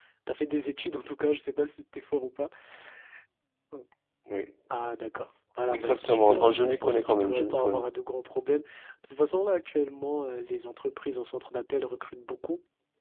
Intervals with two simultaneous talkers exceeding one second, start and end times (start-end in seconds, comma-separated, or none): 5.7-7.8